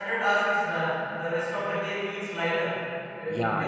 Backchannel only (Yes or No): Yes